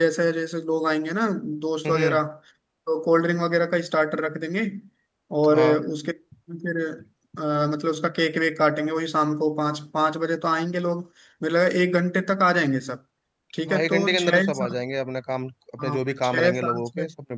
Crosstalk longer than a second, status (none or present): present